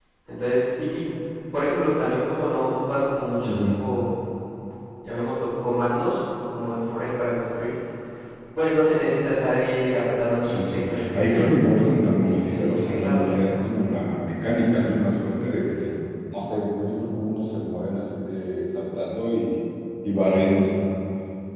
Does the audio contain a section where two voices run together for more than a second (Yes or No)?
Yes